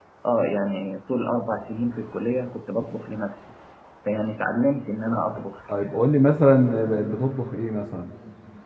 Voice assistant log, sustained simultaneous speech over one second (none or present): none